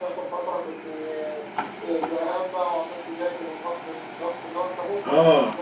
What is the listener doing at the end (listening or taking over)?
listening